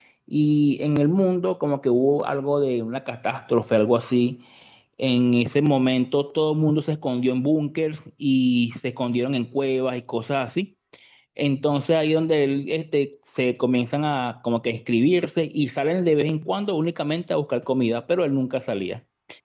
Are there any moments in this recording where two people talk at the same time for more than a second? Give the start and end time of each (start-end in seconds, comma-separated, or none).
none